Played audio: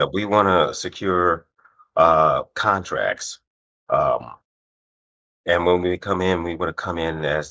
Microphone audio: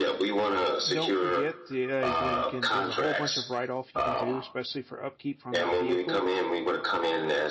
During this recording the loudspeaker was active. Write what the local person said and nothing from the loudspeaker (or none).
don't forget the uh, you know you can there's a whole bunch of write off you can do, especially for upkeep on that vehicle.